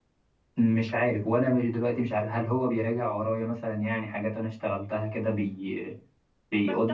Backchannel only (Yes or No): No